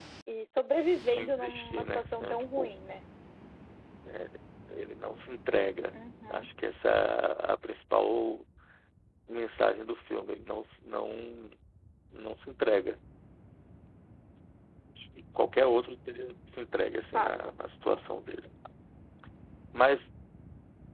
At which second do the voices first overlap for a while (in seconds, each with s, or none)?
1.2 s